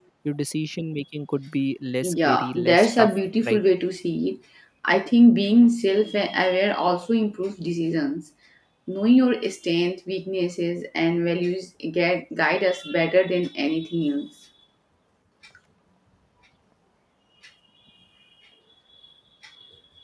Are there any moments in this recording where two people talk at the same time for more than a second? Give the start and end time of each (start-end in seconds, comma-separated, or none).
2.0-3.6